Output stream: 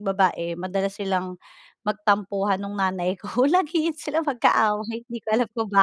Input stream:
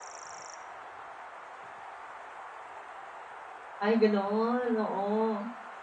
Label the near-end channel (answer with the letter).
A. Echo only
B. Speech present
B